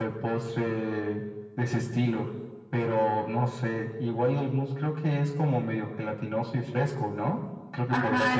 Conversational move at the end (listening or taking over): taking over